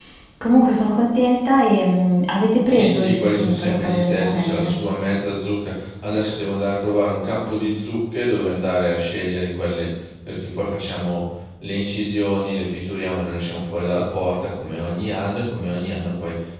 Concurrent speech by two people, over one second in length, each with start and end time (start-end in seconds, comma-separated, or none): 2.6-4.8